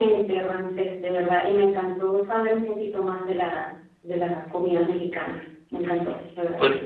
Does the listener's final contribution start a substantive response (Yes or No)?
Yes